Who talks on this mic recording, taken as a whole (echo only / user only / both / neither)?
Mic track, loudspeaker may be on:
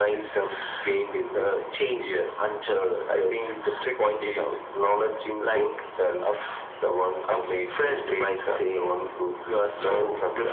echo only